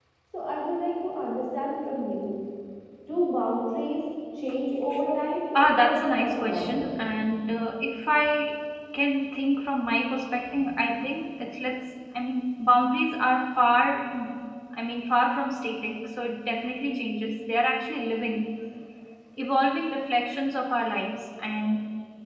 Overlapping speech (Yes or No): Yes